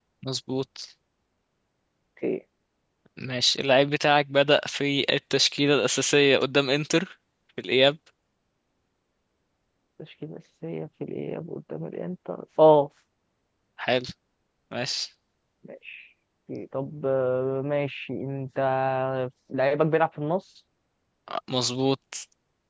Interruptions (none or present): none